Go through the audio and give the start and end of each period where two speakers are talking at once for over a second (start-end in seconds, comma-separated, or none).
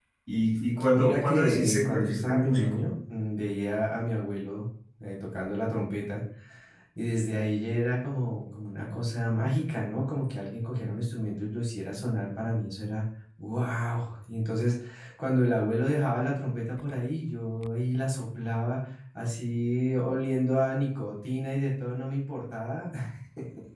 0.9-2.9